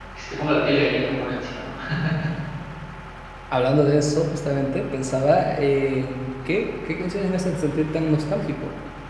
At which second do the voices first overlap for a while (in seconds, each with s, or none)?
none